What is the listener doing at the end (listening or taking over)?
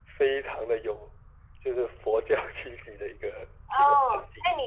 taking over